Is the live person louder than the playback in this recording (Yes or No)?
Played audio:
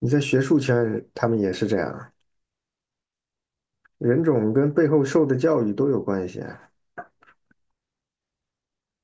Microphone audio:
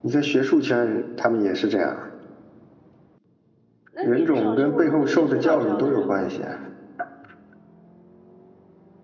No